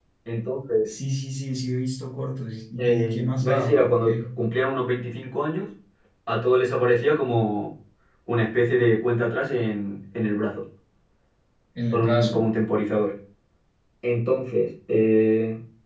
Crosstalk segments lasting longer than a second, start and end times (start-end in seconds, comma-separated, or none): 2.8-4.3